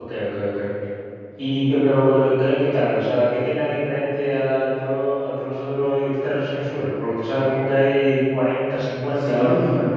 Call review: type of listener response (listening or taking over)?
taking over